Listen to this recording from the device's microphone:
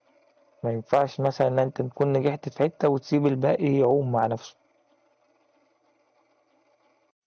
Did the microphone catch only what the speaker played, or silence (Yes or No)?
No